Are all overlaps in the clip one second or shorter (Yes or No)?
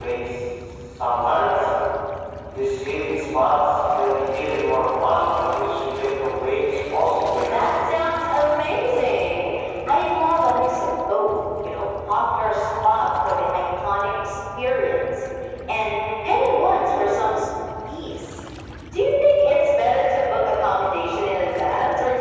Yes